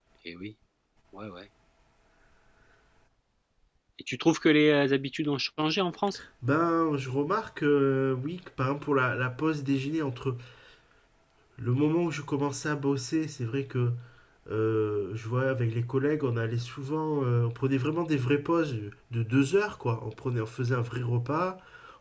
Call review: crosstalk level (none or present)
none